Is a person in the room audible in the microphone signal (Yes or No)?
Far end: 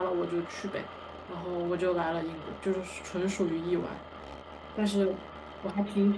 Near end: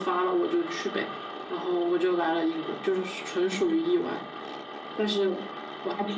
No